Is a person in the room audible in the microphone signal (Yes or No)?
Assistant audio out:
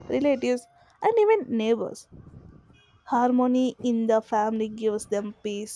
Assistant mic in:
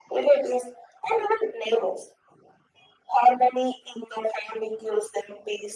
No